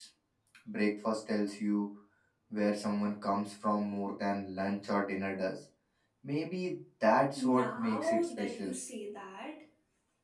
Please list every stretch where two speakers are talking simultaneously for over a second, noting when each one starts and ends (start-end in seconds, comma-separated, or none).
7.4-8.7